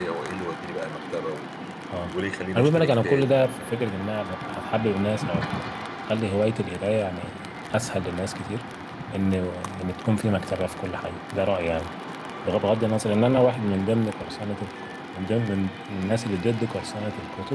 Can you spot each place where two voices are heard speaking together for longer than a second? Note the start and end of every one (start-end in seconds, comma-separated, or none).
2.6-3.8